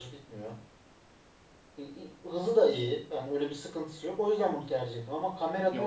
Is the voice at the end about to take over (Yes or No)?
Yes